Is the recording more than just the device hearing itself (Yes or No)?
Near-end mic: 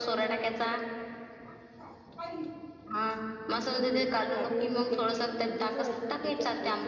Yes